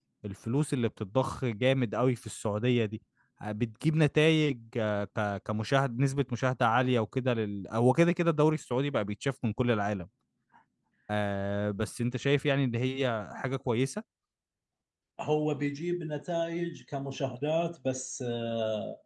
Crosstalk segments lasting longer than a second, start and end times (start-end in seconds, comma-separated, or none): none